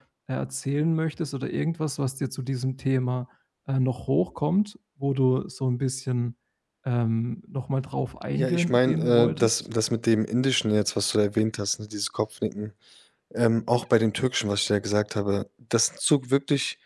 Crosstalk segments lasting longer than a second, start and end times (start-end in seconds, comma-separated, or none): 8.4-9.6